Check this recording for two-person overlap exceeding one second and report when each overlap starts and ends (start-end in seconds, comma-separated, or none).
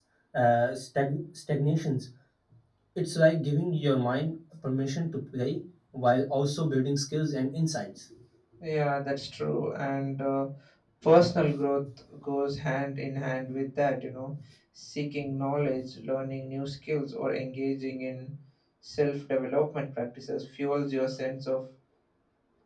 none